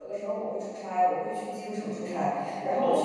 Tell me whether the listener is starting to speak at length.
No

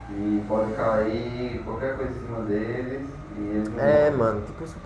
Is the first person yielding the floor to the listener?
Yes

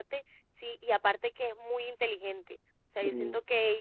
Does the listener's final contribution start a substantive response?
No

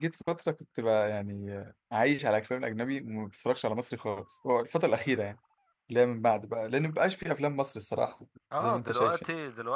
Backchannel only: No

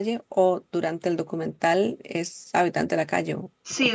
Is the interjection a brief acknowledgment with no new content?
No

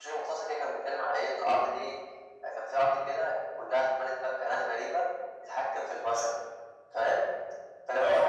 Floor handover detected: No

